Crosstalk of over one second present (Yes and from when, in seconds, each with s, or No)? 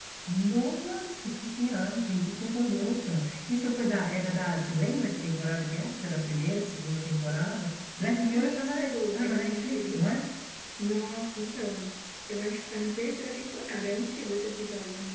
Yes, from 8.3 s